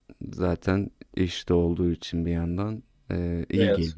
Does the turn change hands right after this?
Yes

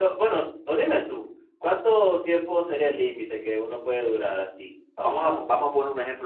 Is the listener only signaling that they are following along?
No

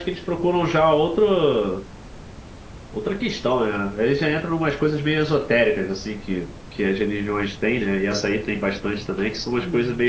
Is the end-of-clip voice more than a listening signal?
No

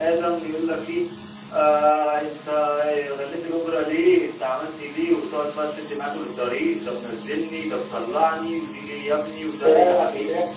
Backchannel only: No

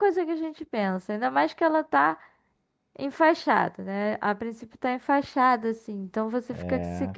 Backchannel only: Yes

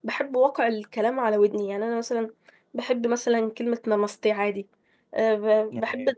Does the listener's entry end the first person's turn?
No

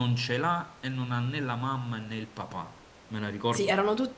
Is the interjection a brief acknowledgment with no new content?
No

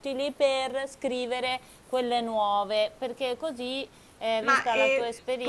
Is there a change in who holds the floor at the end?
Yes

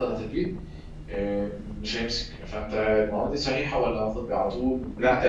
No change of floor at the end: No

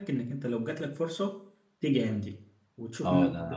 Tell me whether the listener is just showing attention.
No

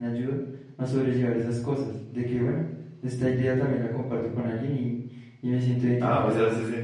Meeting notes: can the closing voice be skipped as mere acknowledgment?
No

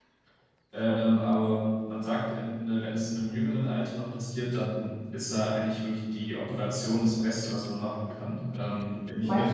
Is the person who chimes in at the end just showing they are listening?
No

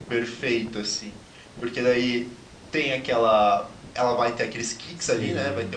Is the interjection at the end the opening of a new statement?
No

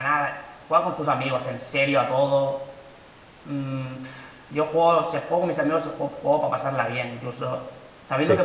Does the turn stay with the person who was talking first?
Yes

